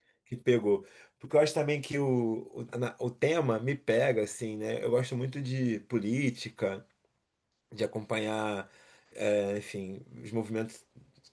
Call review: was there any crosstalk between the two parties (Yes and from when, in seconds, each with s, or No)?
No